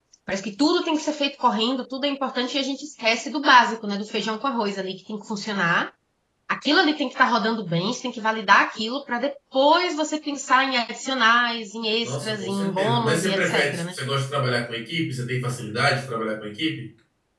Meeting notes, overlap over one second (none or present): present